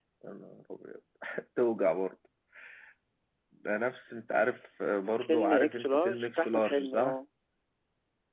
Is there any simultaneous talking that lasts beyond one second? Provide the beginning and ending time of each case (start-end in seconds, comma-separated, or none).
5.2-7.2